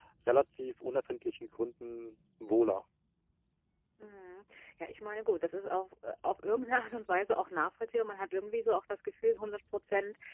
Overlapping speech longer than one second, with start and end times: none

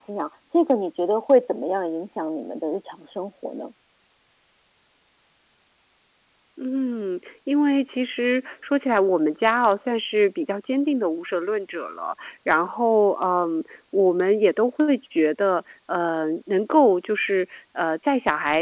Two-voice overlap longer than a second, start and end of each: none

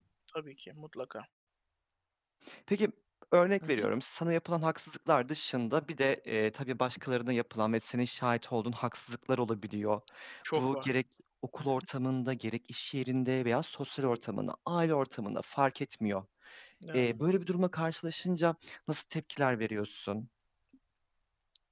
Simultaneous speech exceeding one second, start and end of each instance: none

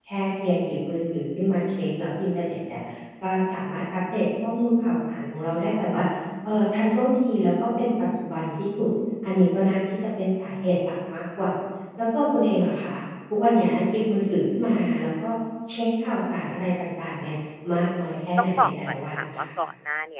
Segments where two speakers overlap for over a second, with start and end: 17.8-19.5

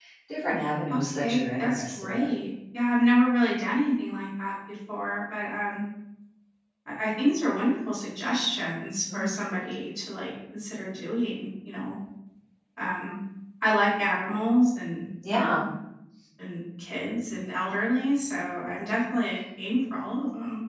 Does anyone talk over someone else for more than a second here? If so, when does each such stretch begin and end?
0.9-2.3

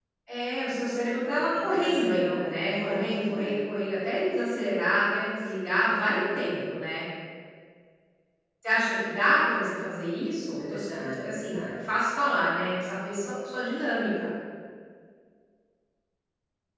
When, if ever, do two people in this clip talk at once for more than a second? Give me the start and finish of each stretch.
1.5-3.5, 10.6-11.8

